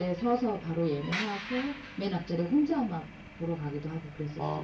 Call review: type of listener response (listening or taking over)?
taking over